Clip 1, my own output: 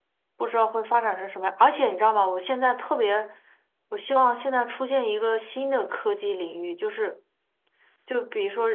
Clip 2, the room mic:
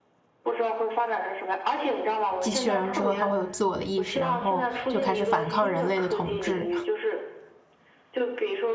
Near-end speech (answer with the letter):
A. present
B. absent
A